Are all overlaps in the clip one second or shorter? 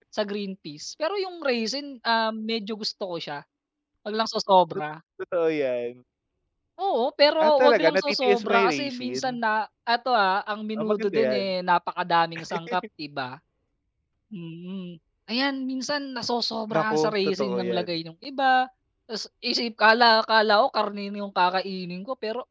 No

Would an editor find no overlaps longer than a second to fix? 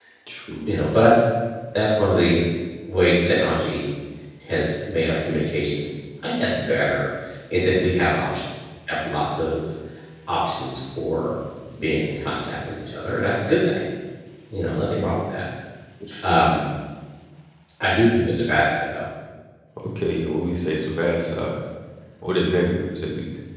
Yes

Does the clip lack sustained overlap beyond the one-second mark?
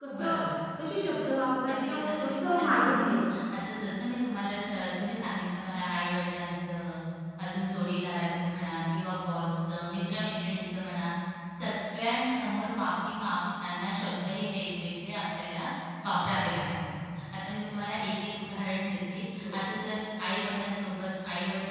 No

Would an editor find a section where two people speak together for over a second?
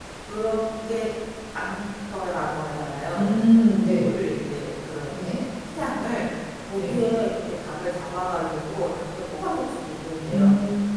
No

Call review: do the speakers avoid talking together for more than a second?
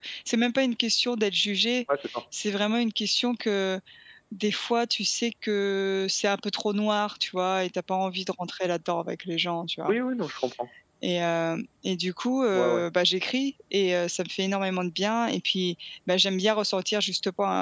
Yes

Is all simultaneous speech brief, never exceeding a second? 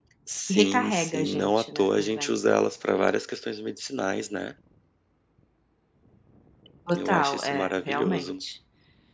No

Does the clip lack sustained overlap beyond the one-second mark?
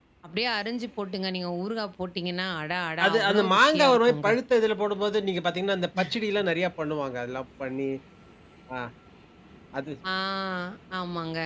No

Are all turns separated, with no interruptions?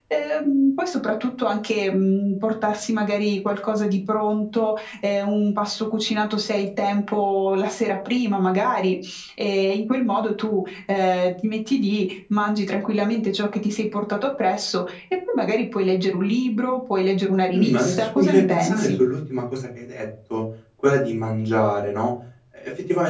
No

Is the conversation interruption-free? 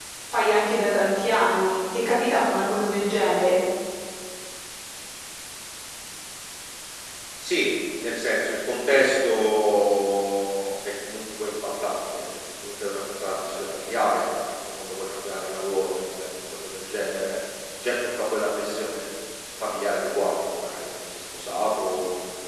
Yes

